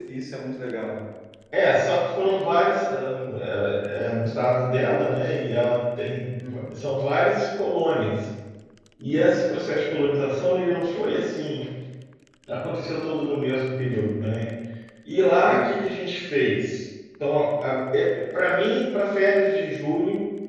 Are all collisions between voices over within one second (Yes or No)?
Yes